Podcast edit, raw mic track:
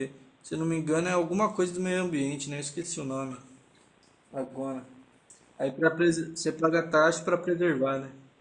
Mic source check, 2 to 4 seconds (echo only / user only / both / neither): user only